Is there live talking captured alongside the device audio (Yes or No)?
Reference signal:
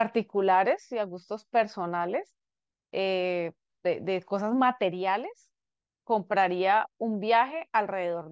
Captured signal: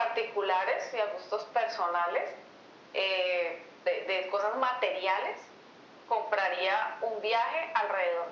No